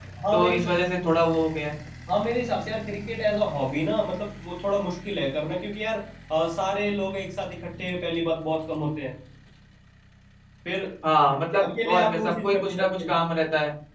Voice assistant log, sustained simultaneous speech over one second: present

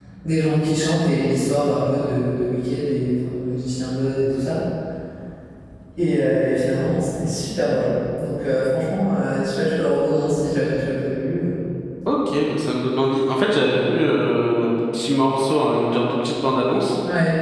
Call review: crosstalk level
none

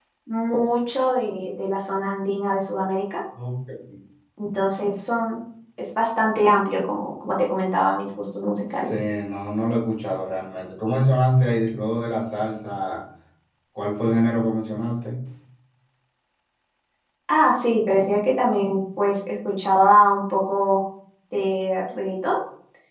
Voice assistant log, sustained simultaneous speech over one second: none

